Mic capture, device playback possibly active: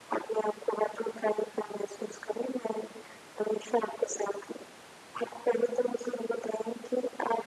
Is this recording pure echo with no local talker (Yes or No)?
Yes